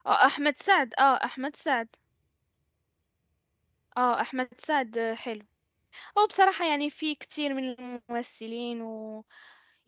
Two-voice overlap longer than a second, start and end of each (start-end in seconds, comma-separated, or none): none